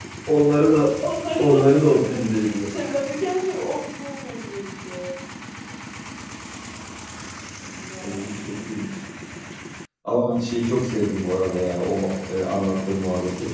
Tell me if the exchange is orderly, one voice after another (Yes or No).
No